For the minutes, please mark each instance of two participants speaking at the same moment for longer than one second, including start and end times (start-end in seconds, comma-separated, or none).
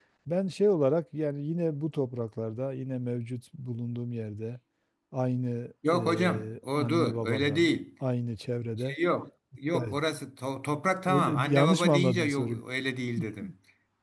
5.9-7.7, 11.1-12.6